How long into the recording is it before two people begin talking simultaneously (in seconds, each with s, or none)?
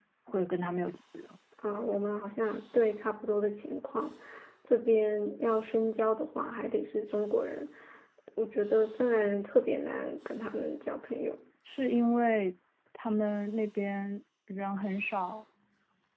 none